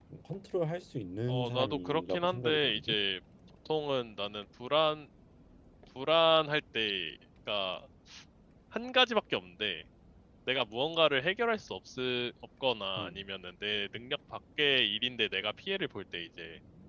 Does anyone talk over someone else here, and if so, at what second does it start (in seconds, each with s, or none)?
1.3 s